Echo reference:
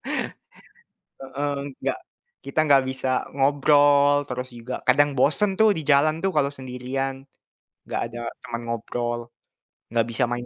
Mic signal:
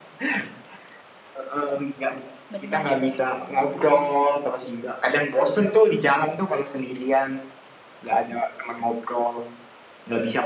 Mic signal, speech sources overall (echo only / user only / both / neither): both